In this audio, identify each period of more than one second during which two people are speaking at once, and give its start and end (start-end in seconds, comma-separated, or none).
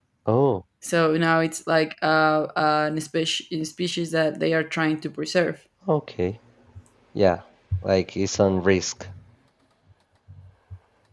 none